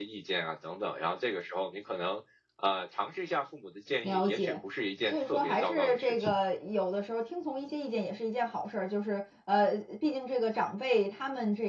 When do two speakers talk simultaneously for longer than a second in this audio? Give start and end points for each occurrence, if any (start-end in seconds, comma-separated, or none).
5.1-6.3